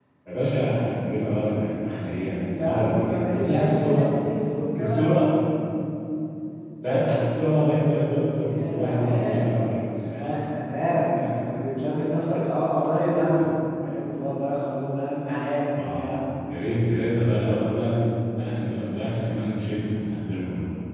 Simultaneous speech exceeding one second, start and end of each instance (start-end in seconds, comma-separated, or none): 2.5-4.1, 8.3-9.6